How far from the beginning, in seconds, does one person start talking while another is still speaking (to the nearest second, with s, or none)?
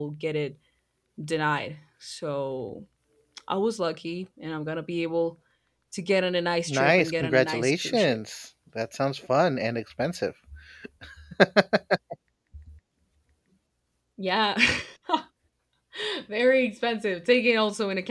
7 s